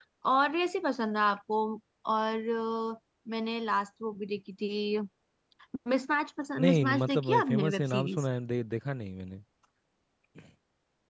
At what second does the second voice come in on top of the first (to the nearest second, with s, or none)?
7 s